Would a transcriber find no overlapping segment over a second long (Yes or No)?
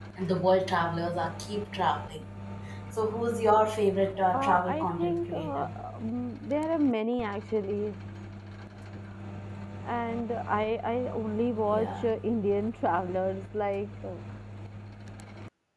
No